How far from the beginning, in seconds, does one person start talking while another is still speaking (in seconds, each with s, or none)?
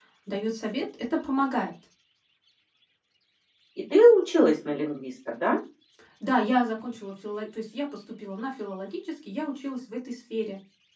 none